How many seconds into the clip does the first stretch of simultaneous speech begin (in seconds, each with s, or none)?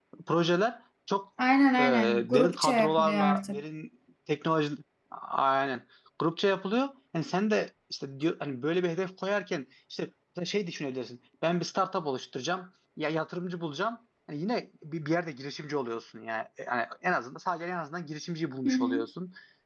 1.8 s